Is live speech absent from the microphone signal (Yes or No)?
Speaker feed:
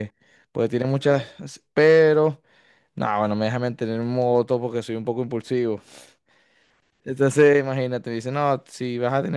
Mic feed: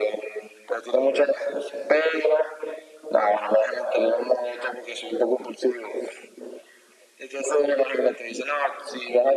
Yes